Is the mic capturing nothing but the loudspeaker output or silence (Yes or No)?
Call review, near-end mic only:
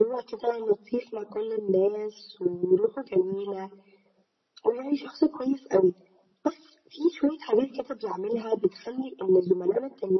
Yes